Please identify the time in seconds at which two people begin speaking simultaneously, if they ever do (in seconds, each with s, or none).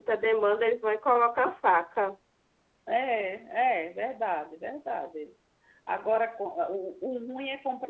none